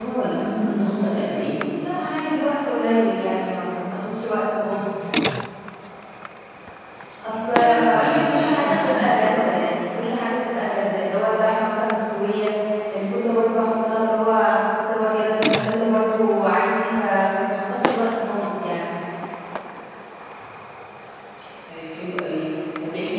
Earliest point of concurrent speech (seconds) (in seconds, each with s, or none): 7.5 s